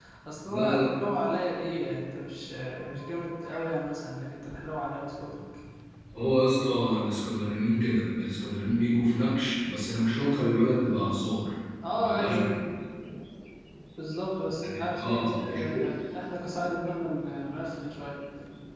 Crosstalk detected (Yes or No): Yes